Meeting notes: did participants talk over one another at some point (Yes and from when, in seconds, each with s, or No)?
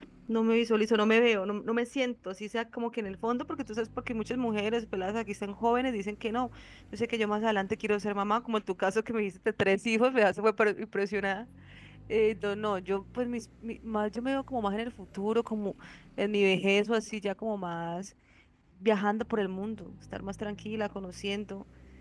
No